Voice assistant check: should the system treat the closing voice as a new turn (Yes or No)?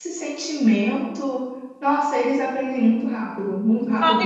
Yes